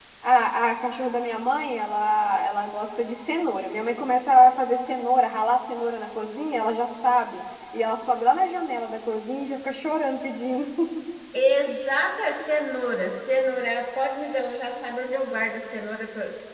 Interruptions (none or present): none